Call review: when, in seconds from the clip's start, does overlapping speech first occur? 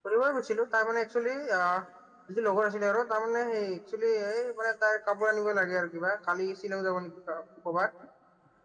none

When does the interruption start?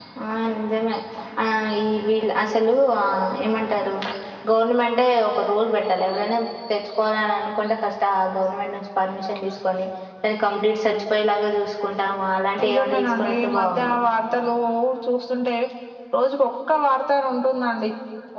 12.6 s

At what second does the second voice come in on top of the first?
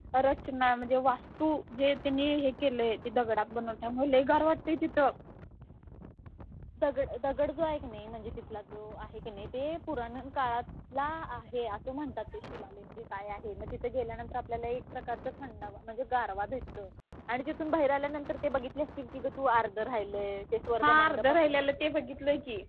20.8 s

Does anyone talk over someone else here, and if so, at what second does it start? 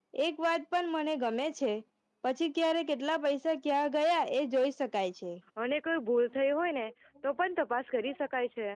none

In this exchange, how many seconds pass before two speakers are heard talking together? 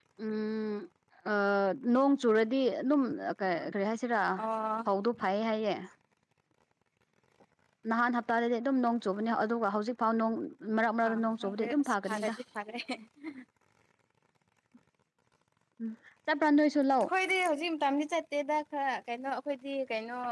11.1 s

